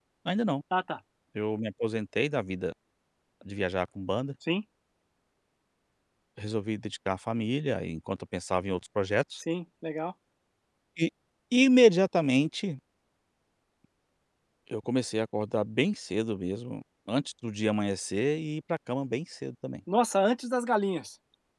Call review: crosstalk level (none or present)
none